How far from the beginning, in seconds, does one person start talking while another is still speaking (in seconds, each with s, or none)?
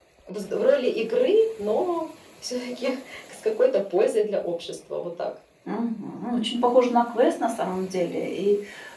none